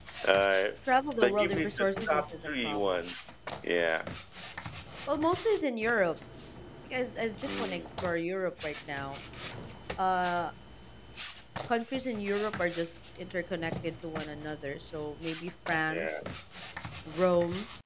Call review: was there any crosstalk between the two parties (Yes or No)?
Yes